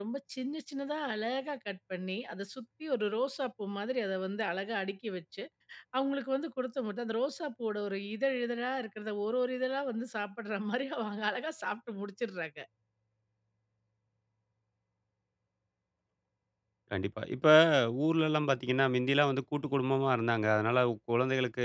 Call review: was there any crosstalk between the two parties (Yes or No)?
No